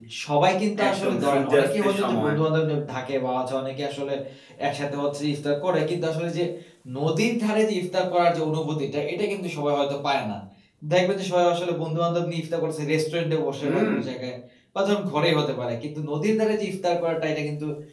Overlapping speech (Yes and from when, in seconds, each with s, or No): Yes, from 0.9 s